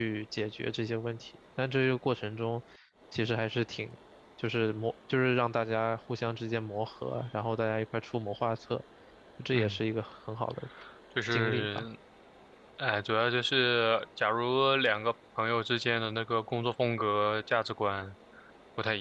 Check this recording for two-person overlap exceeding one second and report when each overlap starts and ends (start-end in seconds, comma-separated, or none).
none